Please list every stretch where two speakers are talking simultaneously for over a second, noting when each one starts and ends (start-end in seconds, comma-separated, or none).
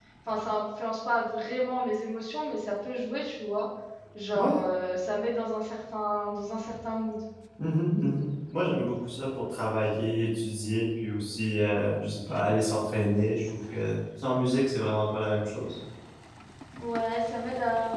none